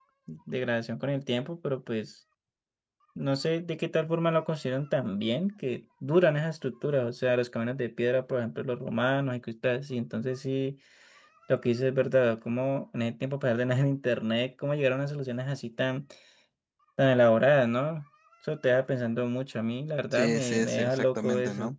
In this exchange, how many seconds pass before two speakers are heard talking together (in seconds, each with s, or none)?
20.1 s